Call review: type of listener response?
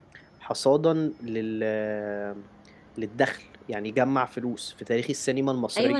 taking over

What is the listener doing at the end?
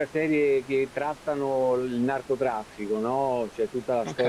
listening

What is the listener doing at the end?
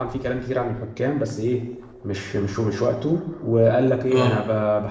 listening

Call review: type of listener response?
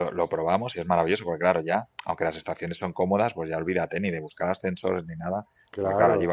listening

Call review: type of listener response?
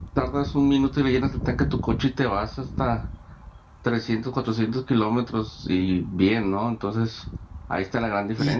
taking over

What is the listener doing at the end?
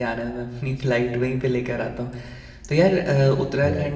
listening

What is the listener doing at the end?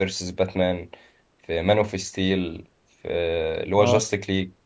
listening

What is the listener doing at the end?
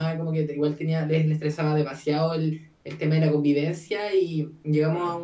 listening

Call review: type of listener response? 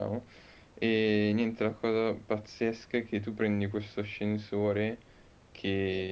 listening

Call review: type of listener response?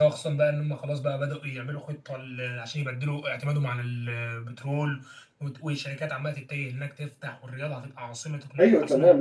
taking over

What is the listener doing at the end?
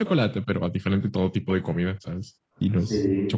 taking over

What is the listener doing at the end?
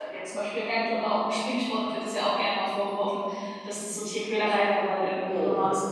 listening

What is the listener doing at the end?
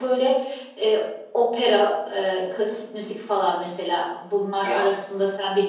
listening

